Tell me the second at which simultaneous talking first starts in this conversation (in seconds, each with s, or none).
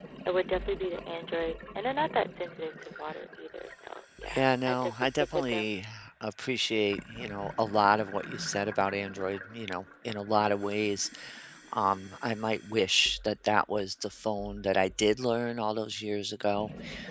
4.3 s